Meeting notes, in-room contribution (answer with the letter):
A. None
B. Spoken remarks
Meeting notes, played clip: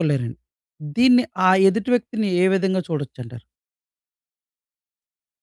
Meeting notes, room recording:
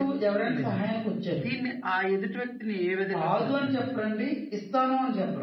B